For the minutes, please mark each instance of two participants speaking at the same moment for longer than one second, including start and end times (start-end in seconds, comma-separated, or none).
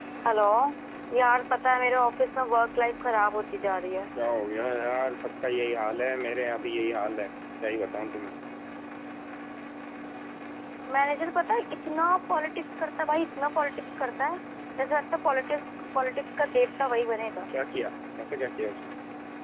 none